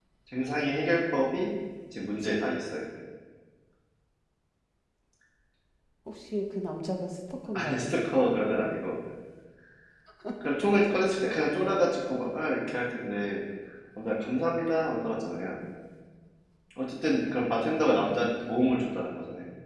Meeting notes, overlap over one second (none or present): none